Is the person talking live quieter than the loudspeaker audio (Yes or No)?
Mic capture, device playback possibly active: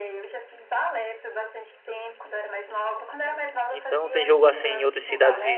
No